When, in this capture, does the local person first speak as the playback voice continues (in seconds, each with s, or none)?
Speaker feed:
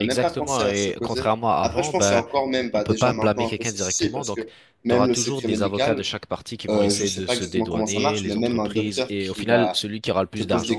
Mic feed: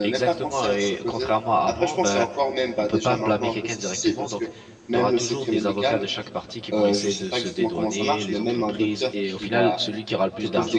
none